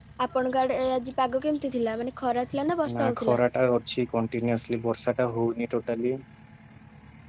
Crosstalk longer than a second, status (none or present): none